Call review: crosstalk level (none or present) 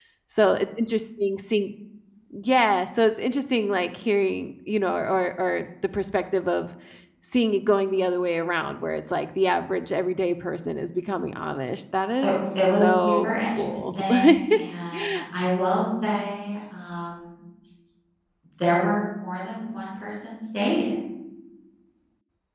present